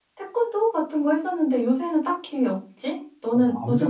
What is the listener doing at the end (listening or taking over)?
taking over